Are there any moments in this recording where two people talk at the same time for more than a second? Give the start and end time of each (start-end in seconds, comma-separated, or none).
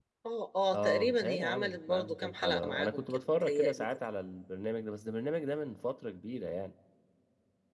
0.7-3.9